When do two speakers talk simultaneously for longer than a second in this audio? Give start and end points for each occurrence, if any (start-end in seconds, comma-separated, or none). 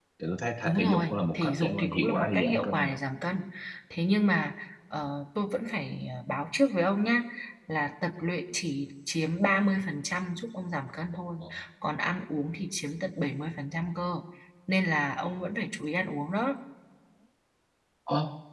0.6-2.9